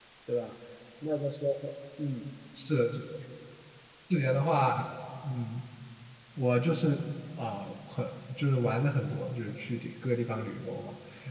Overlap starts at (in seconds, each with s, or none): none